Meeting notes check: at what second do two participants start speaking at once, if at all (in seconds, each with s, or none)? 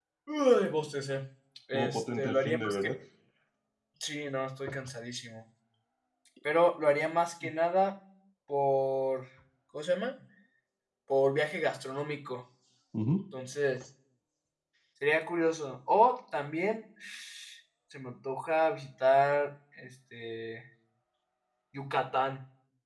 1.7 s